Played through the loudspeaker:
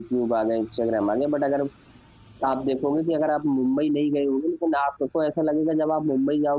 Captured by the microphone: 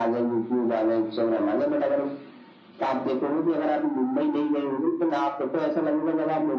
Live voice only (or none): none